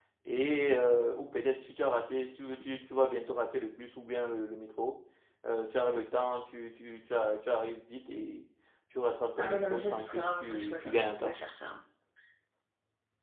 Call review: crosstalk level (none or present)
present